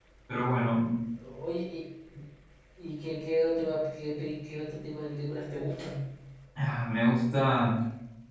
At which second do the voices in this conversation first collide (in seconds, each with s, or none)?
none